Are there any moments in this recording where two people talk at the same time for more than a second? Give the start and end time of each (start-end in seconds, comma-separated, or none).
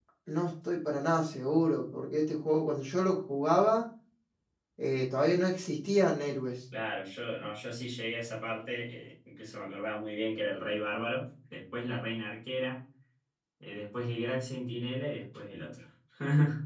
none